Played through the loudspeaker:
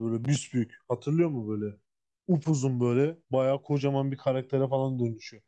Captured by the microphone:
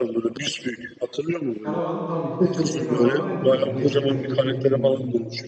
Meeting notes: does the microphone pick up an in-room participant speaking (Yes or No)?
Yes